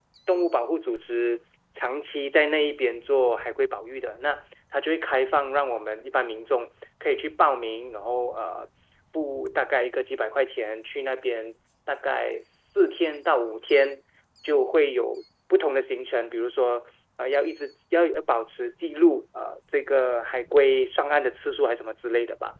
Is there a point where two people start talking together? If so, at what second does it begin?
none

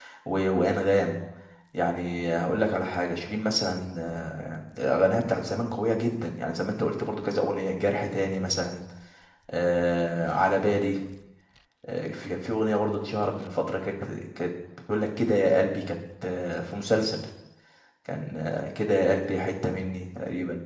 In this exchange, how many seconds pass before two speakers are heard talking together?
none

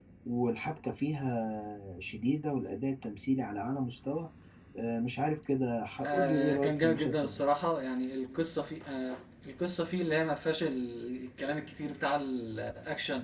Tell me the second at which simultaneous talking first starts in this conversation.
6 s

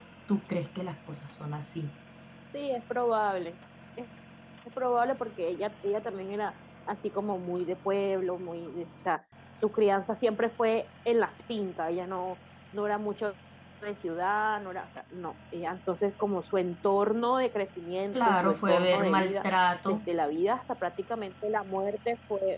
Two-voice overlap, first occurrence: 18 s

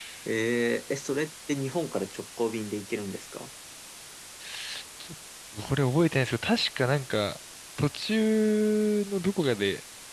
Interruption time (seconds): none

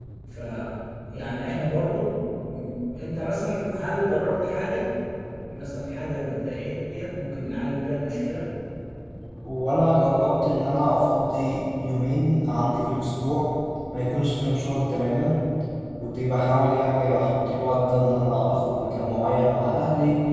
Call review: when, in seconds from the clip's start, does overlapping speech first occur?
none

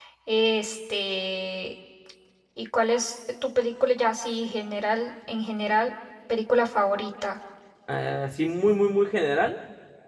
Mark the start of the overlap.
none

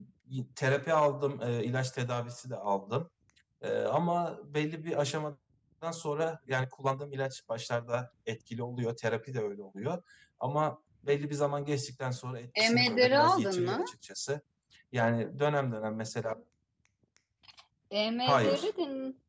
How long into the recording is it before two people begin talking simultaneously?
13 s

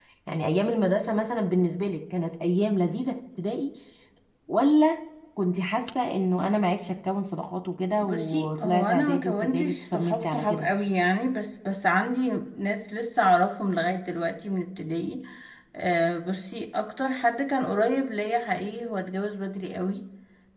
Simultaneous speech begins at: 8 s

